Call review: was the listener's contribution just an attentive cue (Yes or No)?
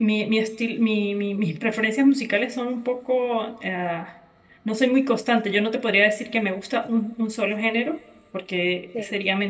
Yes